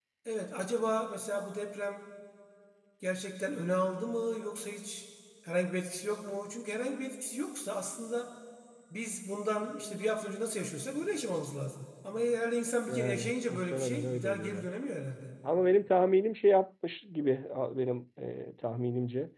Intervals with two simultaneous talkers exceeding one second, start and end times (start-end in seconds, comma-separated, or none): 12.9-14.7